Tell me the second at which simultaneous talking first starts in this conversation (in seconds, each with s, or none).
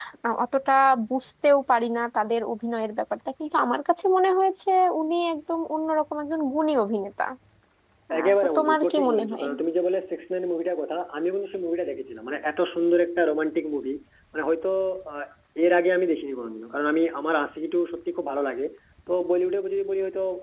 8.2 s